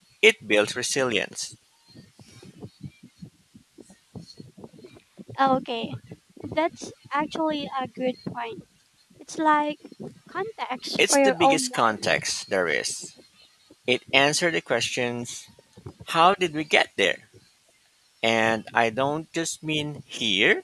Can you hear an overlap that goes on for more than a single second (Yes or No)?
Yes